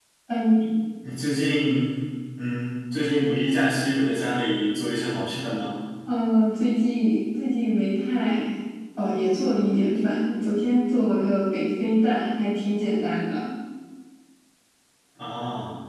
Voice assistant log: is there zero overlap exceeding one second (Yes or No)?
Yes